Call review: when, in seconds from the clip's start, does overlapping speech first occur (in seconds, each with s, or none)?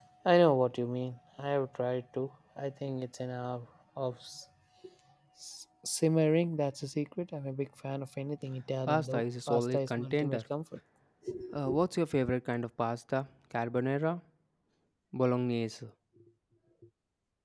8.9 s